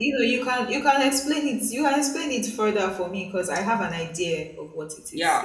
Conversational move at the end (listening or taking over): taking over